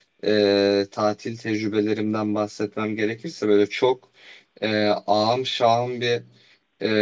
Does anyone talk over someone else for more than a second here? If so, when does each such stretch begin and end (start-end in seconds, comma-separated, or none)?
none